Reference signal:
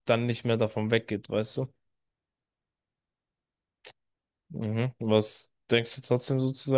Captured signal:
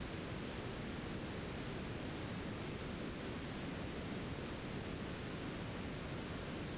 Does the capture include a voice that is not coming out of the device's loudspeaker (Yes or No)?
No